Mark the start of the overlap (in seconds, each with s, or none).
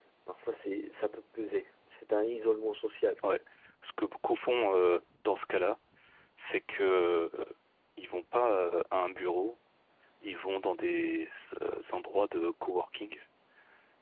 none